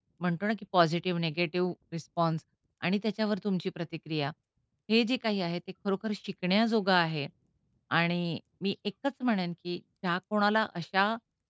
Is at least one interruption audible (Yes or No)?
No